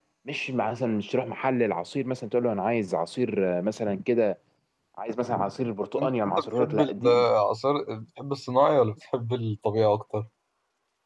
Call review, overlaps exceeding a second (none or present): present